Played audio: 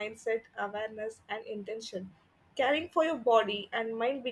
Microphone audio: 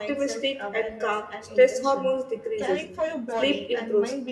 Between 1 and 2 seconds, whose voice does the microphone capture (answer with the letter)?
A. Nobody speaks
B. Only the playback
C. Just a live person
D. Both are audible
D